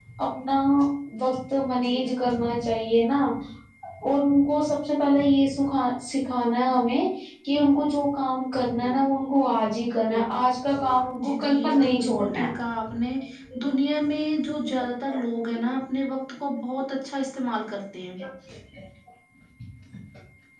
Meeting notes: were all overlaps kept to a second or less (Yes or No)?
No